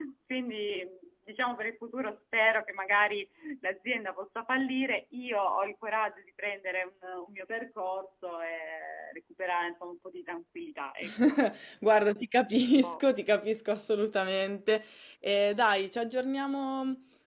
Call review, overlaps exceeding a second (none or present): none